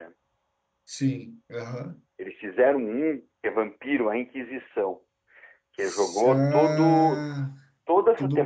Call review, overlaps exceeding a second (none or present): present